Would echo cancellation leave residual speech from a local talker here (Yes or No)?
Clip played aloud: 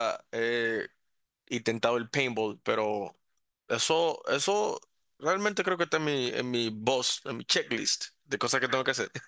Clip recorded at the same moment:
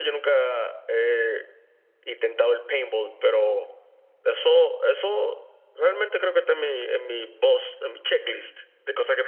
No